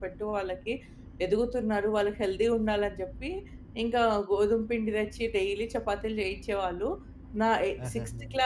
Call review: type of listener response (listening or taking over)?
listening